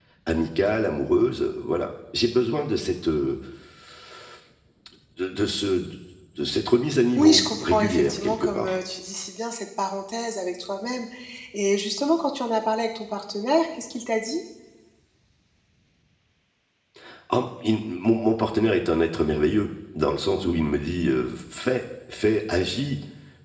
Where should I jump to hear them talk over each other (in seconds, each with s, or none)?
7.2 s